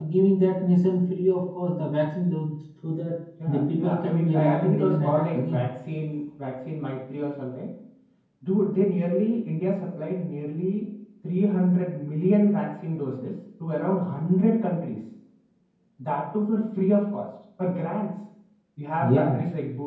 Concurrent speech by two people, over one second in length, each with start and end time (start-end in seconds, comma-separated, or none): 3.5-5.6